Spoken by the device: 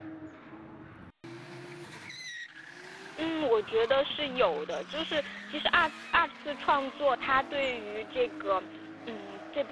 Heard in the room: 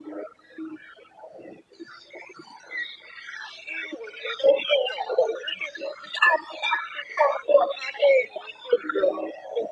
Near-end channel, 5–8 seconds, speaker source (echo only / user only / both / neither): echo only